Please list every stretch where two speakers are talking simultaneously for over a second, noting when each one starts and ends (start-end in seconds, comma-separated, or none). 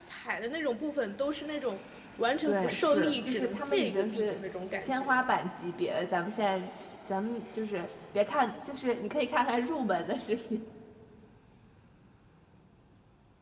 2.4-4.4